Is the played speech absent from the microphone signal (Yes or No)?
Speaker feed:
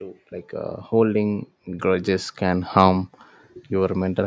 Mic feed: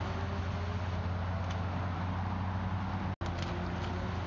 Yes